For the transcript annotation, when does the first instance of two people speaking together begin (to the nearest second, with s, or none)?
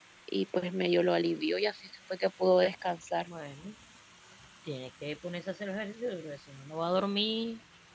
none